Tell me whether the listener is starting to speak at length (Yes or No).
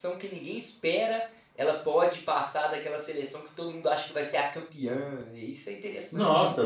Yes